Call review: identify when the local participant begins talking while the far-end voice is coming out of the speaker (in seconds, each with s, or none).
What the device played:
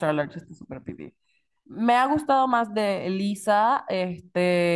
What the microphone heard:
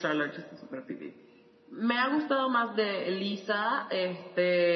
none